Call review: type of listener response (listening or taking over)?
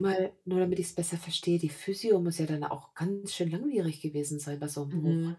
taking over